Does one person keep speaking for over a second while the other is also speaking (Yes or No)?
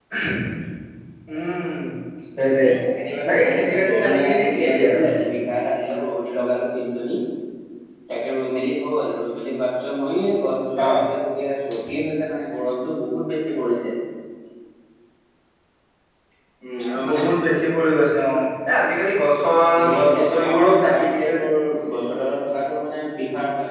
Yes